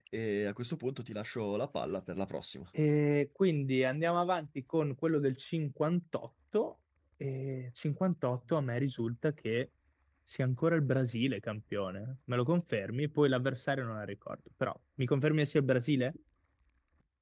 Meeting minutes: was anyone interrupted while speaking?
No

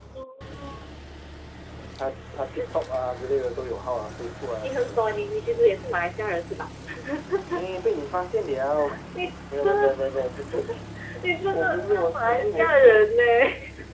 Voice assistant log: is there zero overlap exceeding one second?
No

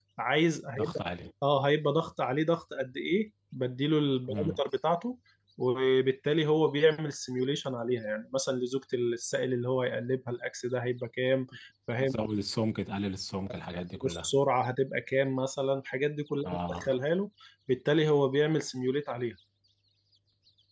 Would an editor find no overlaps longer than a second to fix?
Yes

